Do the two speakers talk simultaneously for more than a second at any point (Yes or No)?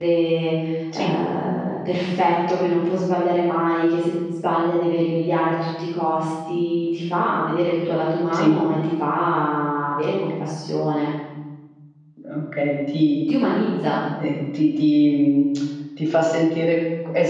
No